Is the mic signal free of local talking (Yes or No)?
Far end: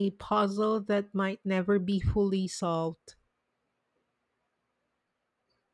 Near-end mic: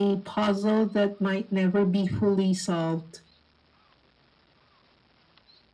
Yes